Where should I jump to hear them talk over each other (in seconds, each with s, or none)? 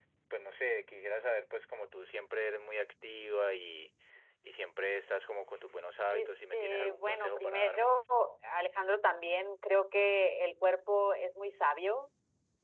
6.1 s